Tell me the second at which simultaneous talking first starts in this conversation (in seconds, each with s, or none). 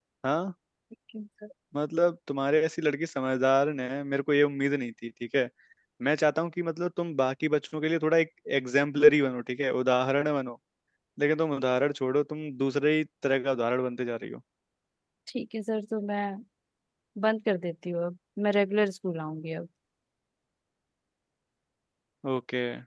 none